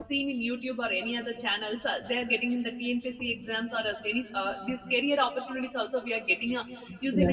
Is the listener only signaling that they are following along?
No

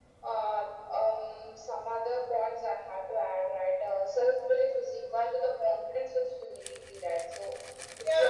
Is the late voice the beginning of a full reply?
Yes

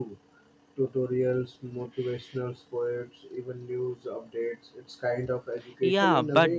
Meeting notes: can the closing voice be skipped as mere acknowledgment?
No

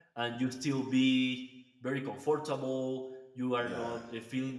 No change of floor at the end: Yes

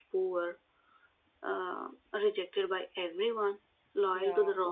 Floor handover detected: No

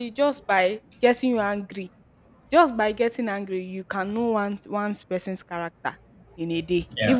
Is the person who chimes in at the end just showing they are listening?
Yes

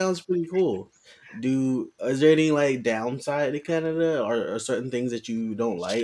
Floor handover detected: Yes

